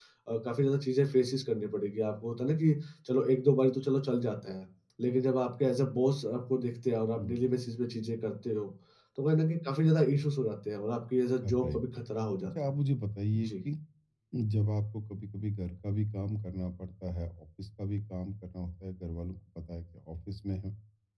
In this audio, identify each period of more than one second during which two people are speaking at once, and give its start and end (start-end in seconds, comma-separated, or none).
none